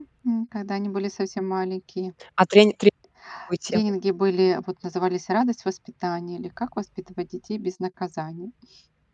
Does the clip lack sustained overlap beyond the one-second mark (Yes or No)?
Yes